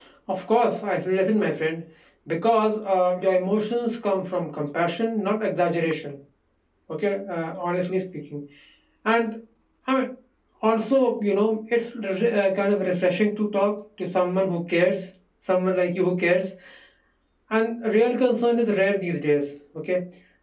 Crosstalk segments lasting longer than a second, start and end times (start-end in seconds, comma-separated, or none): none